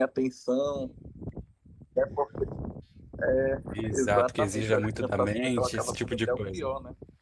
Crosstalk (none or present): present